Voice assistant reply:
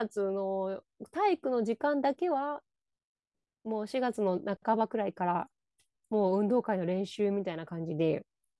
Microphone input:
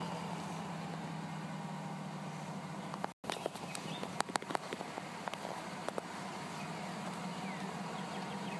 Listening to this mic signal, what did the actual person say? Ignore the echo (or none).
none